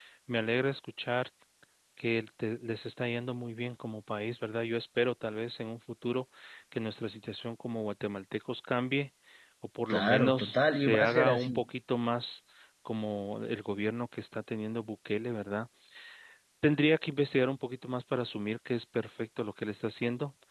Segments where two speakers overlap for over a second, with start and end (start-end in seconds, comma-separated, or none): 9.9-11.6